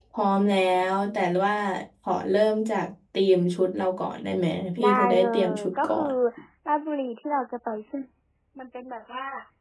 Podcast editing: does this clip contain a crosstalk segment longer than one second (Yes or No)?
Yes